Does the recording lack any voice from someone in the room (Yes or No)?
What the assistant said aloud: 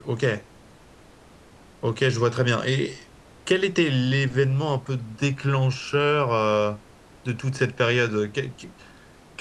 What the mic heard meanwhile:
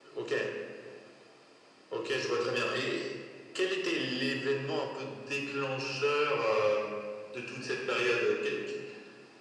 Yes